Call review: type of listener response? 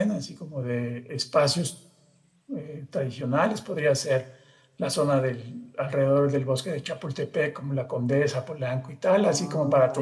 taking over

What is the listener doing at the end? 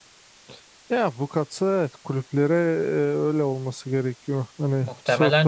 taking over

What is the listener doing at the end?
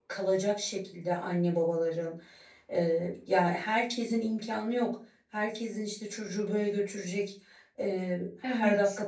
listening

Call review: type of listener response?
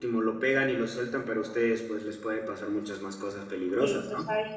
taking over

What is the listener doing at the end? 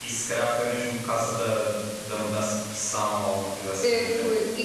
taking over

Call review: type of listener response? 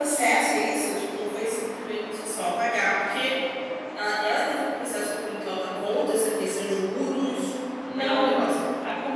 taking over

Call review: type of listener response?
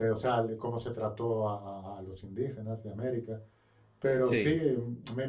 listening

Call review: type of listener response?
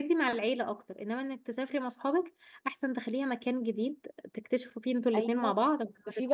taking over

